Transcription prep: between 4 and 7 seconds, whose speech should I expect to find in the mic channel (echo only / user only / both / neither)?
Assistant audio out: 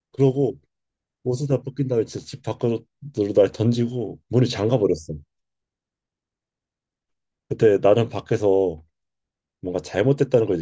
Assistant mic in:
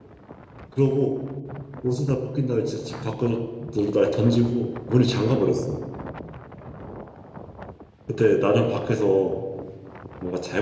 echo only